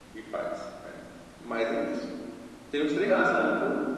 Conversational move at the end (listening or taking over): listening